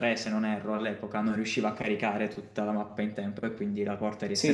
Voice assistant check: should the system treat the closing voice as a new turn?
Yes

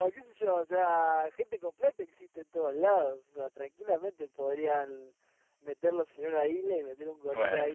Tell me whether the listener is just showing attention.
No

